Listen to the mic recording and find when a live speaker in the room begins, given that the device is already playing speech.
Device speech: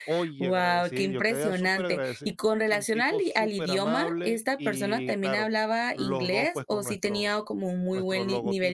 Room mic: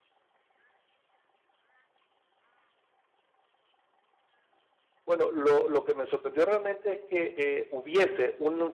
5.1 s

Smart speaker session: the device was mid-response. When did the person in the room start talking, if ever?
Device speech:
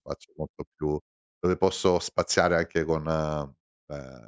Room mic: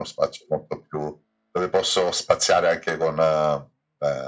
none

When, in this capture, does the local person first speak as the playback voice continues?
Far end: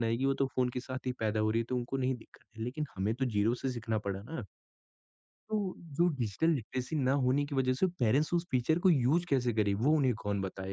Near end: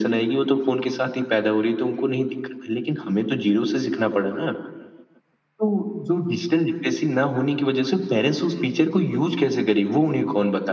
none

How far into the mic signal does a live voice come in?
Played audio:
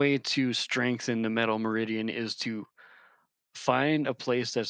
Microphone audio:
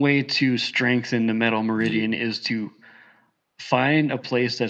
1.8 s

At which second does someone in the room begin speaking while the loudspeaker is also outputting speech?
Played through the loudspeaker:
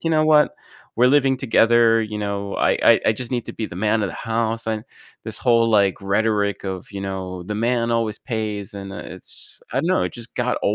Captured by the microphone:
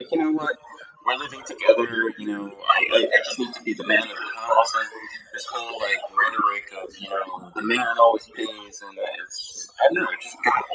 none

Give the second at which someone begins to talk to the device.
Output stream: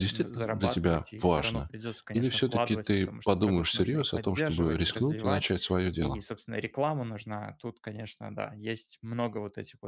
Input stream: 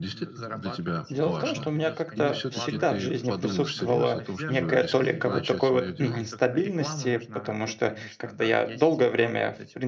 1.1 s

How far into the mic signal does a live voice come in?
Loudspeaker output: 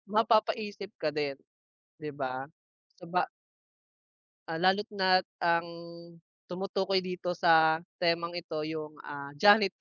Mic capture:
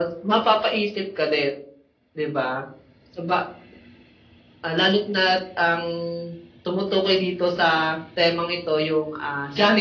none

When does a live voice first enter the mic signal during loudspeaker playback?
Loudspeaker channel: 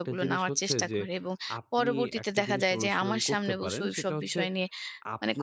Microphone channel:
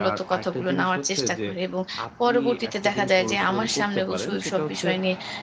none

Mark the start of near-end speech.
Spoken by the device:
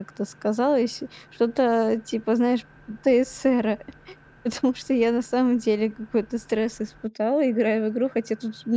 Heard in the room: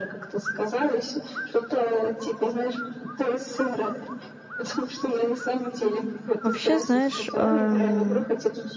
6.4 s

